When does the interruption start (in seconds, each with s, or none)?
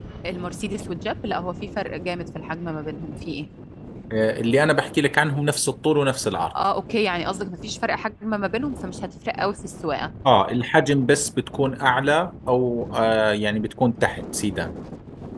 none